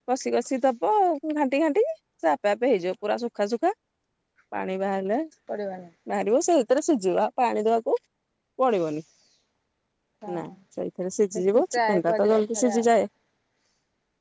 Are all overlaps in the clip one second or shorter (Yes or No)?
No